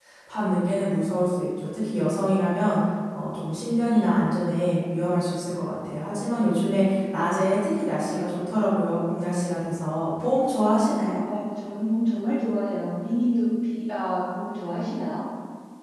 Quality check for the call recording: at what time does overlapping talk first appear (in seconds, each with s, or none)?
none